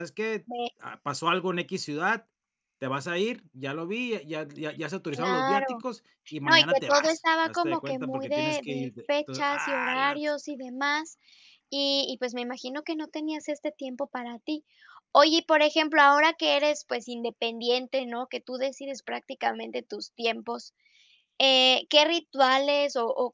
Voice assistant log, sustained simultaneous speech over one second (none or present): present